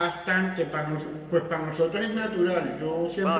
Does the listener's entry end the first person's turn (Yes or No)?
Yes